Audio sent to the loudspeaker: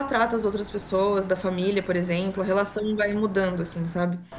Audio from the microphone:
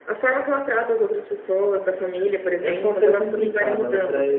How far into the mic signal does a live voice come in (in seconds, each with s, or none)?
2.6 s